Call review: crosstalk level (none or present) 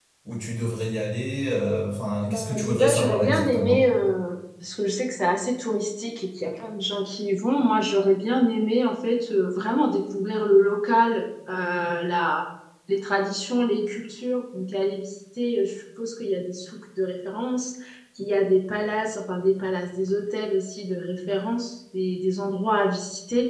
present